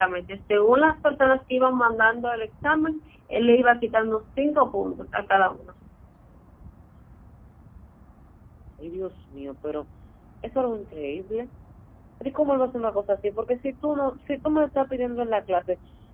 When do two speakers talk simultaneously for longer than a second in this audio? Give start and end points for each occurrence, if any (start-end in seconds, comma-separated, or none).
none